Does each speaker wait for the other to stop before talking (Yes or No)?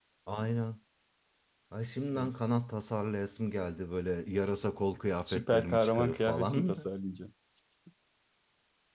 No